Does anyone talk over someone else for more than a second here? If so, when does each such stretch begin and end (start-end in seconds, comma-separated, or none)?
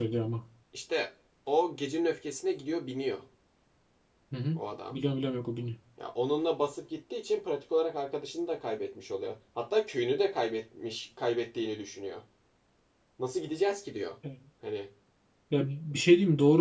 none